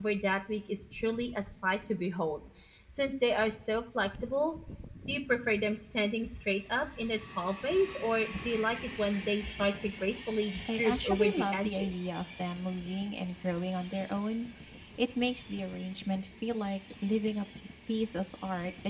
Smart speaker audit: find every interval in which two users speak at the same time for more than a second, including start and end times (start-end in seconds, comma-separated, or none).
10.7-12.1